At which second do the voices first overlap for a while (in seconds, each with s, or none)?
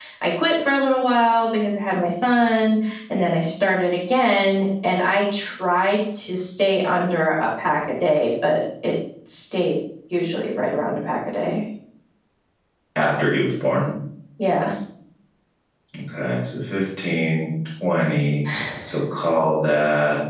none